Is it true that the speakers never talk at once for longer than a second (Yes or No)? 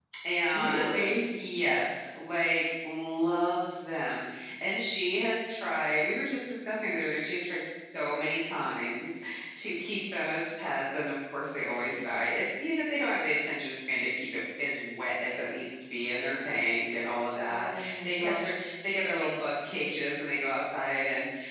No